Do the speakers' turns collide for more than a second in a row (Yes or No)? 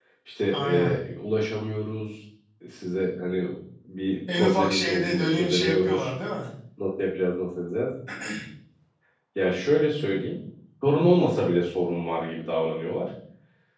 Yes